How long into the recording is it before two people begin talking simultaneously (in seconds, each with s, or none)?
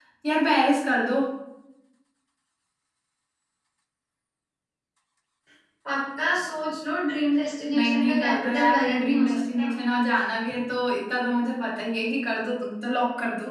7.7 s